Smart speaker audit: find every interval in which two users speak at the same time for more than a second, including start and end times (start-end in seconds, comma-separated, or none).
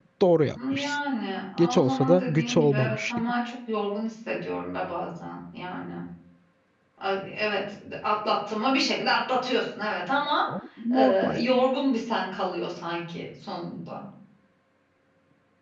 1.6-3.3